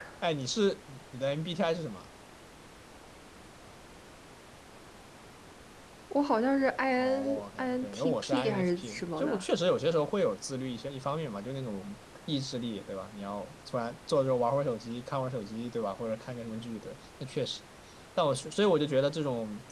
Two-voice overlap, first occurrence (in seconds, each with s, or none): 6.9 s